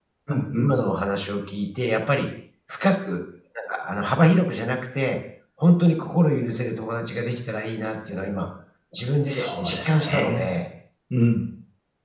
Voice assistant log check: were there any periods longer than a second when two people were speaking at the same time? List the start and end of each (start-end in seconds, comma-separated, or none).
9.2-10.5